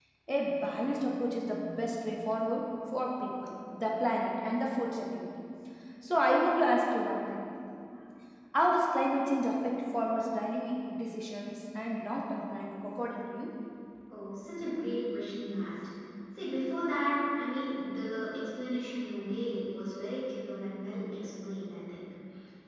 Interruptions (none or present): none